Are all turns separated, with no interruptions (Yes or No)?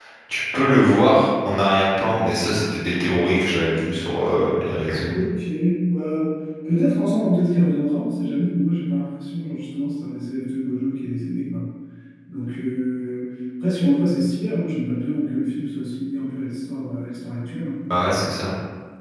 Yes